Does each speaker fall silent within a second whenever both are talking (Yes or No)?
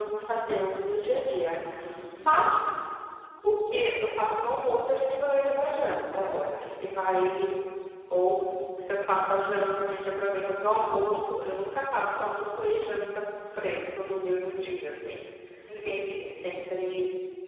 Yes